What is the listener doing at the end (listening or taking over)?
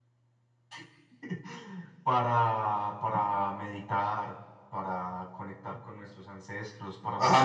taking over